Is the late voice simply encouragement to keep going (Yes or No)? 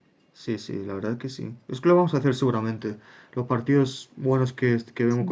Yes